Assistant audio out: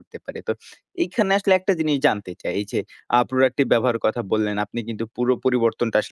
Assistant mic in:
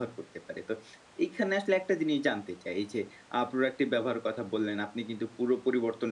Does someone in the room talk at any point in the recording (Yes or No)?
No